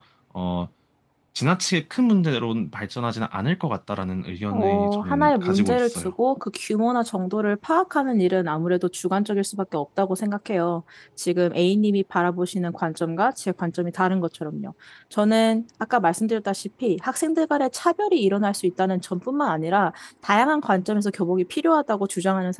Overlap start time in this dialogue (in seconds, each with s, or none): 4.5 s